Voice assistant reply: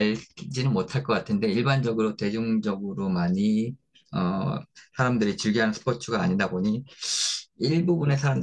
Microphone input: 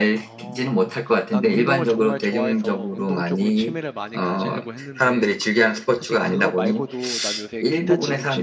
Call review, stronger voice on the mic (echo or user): echo